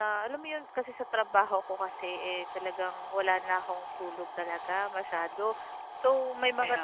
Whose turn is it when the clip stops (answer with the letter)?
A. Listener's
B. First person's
B